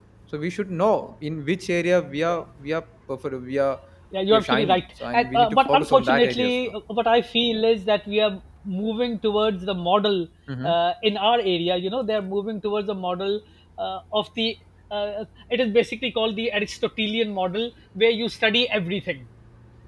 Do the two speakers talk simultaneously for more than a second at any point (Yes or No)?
Yes